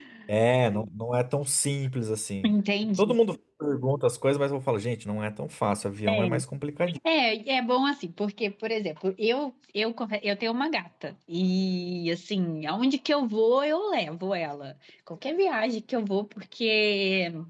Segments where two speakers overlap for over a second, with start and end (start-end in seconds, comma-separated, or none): none